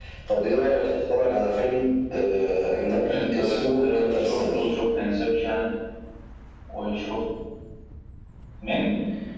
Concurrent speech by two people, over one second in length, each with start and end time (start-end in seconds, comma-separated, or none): 3.1-4.7